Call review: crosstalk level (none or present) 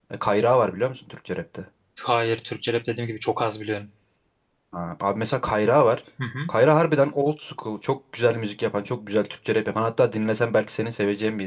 none